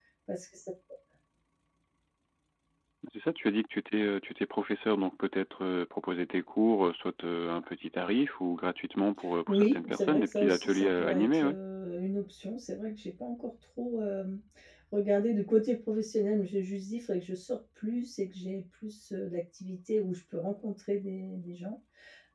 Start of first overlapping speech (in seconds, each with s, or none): 9.5 s